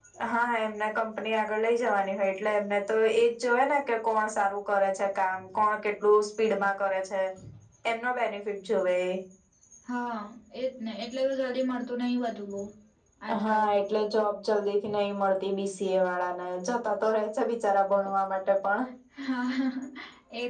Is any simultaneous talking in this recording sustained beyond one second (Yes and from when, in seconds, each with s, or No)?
No